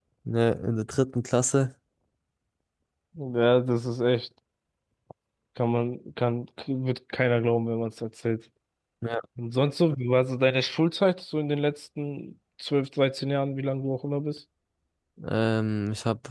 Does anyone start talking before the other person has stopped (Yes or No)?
No